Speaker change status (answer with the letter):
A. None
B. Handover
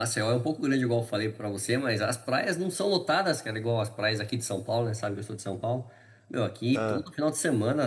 A